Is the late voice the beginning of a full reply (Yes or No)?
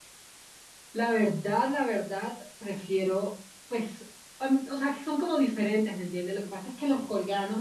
No